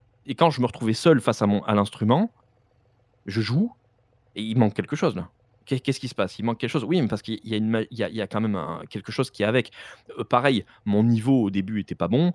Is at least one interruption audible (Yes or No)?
No